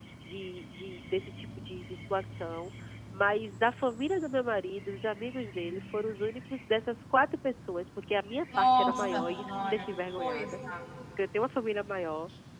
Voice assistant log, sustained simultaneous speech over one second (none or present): present